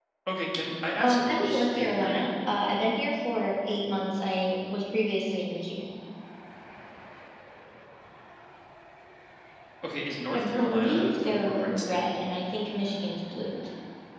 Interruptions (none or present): present